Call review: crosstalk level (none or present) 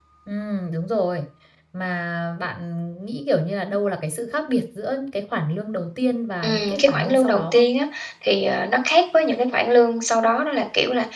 present